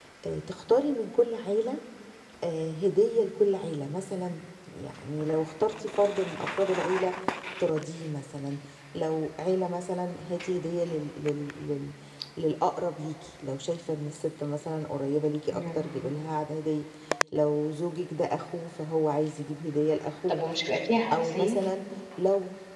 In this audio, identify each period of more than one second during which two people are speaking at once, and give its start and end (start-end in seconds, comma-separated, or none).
none